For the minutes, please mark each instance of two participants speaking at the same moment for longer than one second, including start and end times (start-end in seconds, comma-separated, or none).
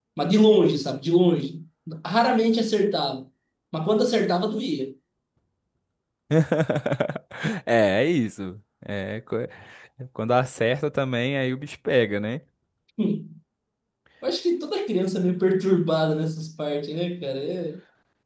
none